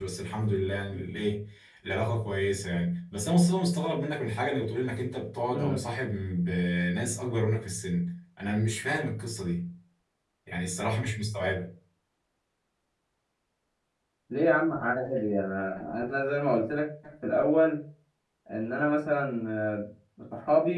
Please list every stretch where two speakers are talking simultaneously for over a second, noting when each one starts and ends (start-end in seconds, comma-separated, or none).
none